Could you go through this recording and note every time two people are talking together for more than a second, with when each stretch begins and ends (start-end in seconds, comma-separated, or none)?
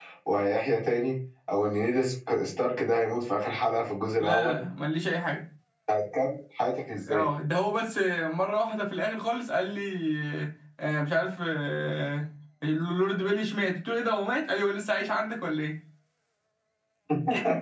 none